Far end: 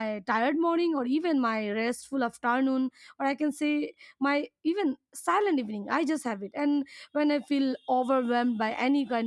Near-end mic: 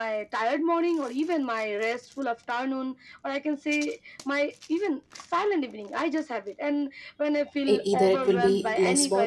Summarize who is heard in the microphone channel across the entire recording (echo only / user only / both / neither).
both